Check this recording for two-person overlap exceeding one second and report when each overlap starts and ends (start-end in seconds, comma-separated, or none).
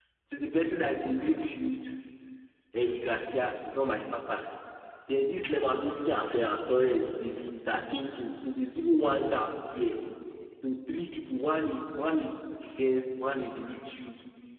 none